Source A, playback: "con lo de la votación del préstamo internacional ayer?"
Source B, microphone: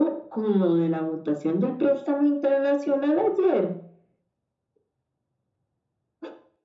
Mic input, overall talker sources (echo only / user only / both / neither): echo only